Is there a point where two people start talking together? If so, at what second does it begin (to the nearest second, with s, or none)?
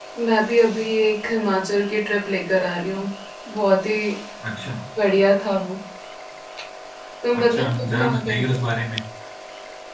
7 s